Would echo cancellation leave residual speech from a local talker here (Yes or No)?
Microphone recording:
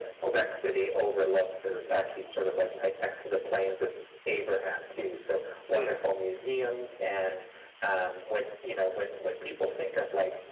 Yes